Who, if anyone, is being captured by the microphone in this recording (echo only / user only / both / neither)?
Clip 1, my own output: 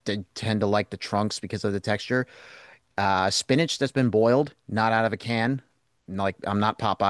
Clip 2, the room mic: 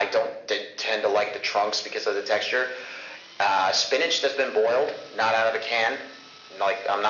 echo only